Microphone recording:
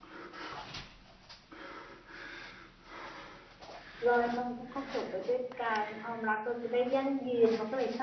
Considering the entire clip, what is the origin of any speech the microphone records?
user only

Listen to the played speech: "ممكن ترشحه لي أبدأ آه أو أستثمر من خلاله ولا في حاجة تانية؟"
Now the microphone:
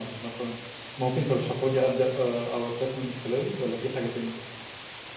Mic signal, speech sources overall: echo only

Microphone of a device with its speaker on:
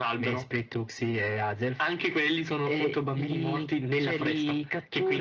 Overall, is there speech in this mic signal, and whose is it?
echo only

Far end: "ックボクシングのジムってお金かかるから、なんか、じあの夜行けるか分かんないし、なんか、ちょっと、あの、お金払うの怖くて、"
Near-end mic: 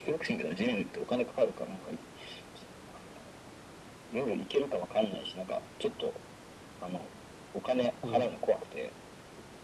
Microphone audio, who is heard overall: both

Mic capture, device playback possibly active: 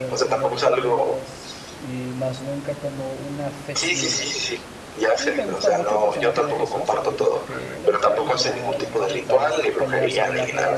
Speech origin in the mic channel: both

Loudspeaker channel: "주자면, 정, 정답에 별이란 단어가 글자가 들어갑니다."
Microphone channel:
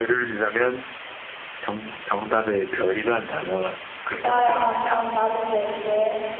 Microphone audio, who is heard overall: both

